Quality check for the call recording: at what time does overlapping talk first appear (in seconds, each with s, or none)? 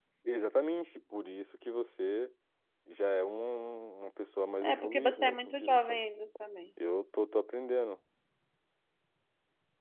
4.6 s